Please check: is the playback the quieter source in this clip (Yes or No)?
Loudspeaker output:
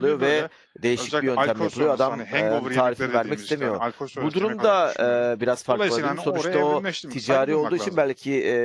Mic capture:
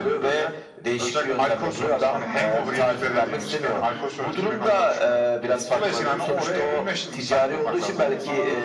No